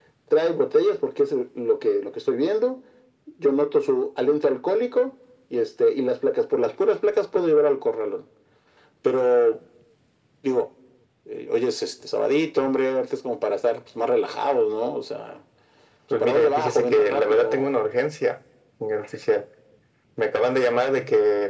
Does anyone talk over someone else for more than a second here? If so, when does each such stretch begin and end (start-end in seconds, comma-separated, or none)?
16.2-17.6